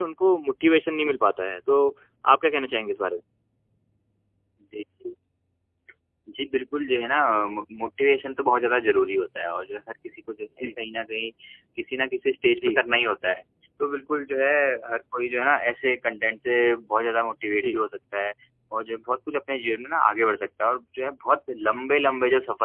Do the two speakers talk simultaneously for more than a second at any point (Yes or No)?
No